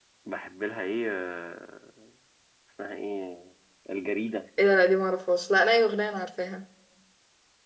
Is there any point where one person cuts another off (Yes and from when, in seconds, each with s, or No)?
No